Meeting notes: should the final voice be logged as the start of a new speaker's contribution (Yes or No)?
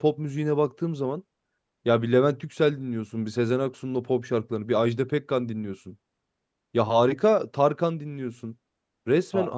No